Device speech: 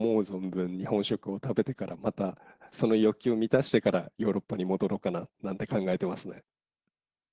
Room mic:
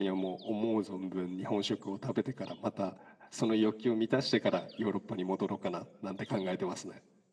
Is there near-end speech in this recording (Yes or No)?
No